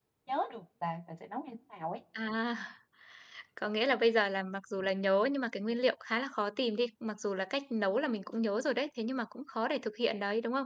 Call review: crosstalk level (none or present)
none